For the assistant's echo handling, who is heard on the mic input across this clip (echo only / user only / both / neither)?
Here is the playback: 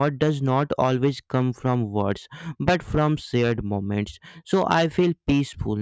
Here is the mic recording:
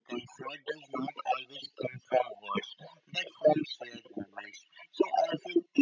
echo only